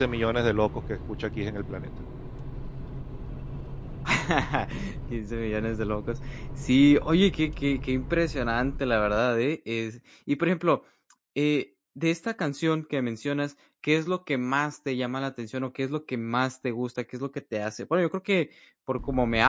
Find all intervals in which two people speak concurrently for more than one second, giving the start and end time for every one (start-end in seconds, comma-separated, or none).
none